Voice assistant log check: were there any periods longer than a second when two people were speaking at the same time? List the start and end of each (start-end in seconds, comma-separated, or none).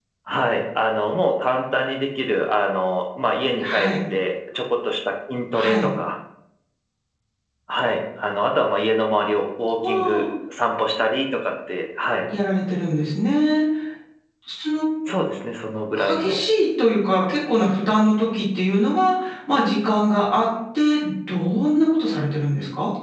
none